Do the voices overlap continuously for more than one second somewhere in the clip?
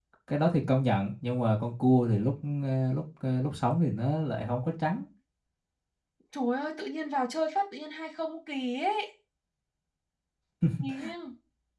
No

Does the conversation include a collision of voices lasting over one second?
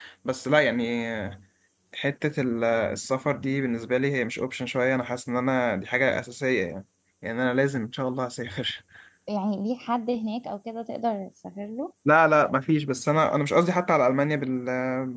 No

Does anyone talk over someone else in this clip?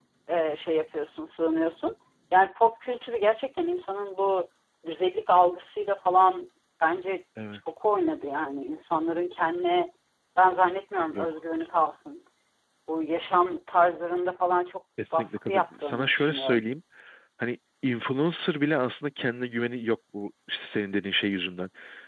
Yes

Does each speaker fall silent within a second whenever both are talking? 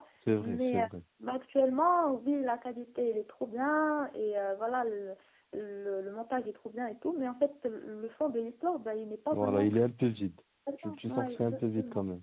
No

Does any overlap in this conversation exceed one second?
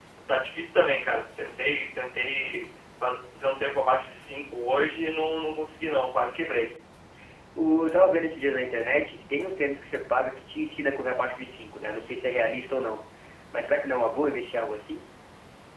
No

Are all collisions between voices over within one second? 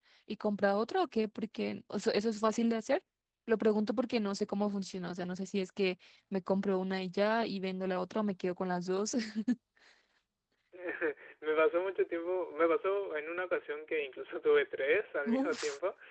Yes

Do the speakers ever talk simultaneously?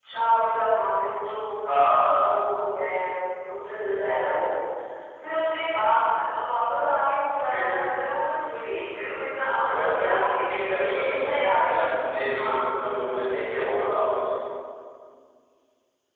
Yes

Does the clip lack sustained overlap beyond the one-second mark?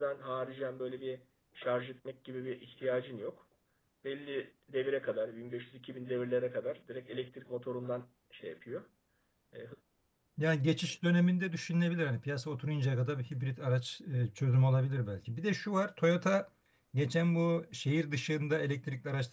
Yes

